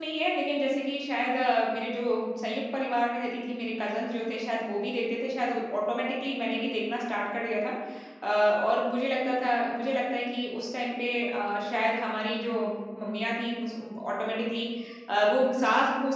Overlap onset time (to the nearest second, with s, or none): none